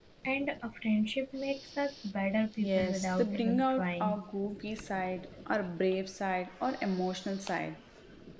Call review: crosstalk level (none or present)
present